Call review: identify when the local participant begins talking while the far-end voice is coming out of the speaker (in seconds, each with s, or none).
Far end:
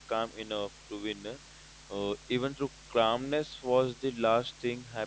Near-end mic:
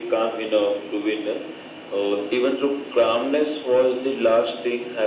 none